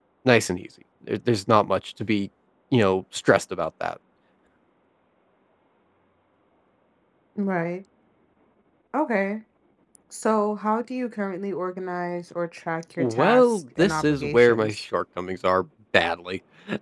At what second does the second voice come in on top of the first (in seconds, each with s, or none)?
13.0 s